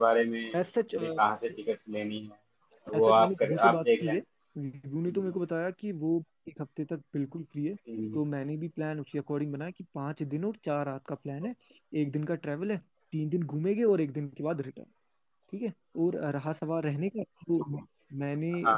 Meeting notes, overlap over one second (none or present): present